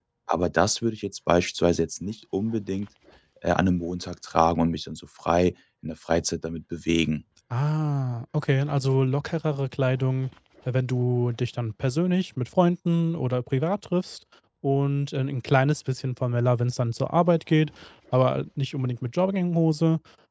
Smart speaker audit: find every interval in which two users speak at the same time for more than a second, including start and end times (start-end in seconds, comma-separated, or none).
none